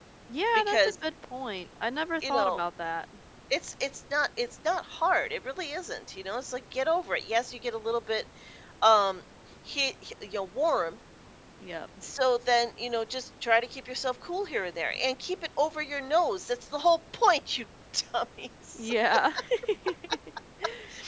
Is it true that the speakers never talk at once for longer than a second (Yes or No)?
Yes